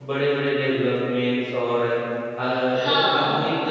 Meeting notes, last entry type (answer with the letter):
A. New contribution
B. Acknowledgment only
B